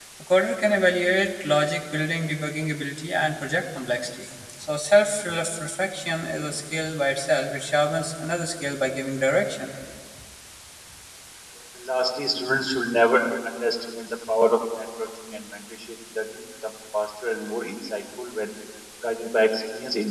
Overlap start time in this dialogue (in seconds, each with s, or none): none